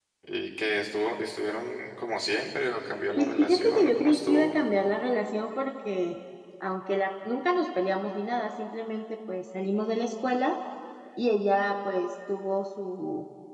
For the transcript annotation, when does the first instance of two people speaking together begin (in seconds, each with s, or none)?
3.2 s